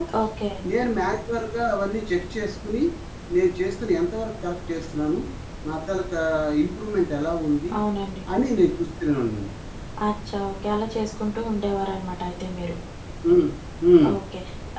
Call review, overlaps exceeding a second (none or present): none